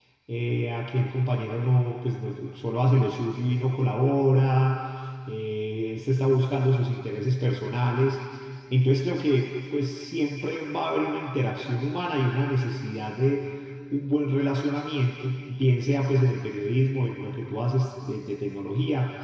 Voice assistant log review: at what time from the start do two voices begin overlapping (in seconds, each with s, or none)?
none